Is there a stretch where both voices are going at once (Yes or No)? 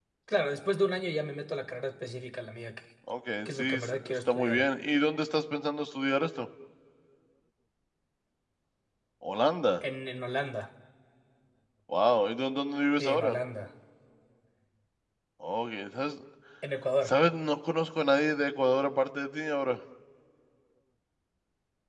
Yes